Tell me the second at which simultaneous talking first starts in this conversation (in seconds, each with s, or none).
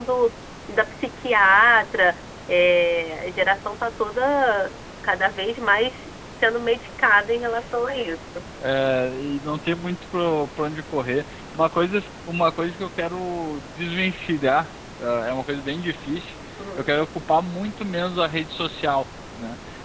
none